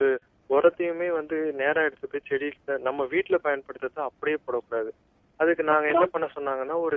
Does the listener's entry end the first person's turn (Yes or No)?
No